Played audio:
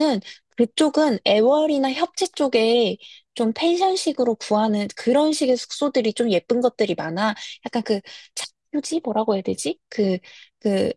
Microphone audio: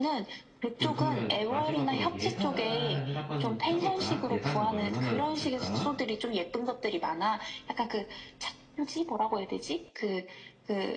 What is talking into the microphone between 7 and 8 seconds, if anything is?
echo only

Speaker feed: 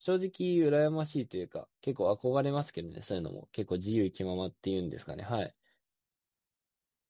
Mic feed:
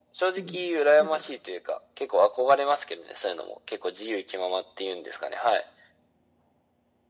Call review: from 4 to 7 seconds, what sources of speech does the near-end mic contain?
echo only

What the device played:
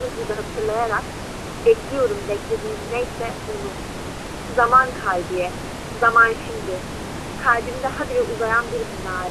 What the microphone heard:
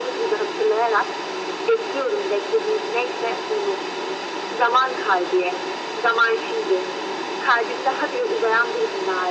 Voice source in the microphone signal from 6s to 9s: echo only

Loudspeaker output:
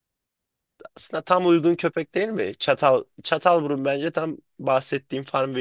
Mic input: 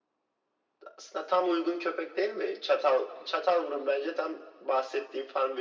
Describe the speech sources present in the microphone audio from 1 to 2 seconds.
echo only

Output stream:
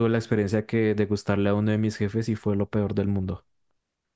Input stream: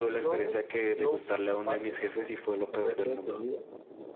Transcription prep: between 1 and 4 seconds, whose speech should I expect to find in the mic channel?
both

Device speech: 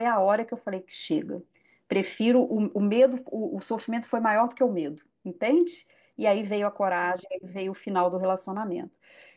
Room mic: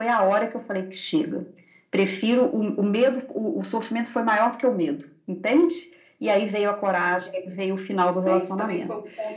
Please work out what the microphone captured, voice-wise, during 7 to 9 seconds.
both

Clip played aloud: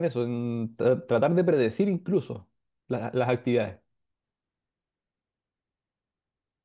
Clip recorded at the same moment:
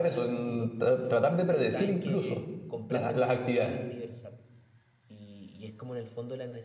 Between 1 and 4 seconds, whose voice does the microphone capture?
both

